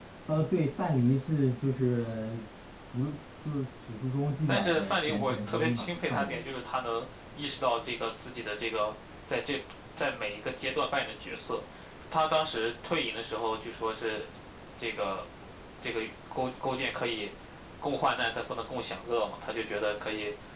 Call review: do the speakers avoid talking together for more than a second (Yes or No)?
No